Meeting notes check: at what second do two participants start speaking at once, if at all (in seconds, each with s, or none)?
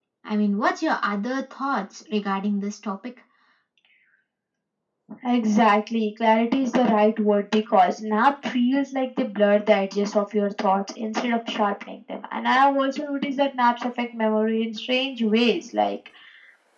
none